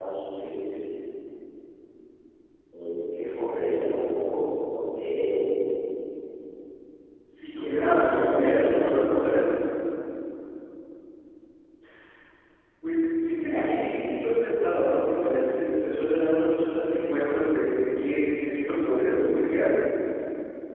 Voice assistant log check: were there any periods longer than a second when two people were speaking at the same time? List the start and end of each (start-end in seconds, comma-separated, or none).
7.5-9.2